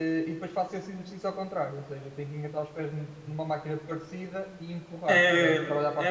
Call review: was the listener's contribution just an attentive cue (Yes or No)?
No